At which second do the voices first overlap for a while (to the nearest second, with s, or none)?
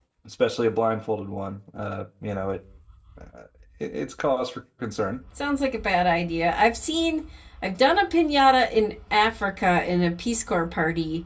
none